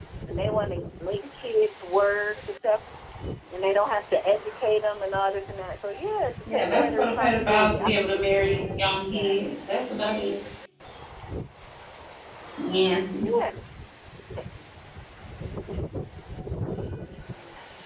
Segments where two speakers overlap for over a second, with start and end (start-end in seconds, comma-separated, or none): 6.5-9.5